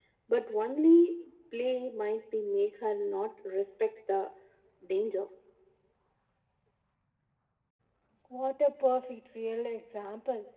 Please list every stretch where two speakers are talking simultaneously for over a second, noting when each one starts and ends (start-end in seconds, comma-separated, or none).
none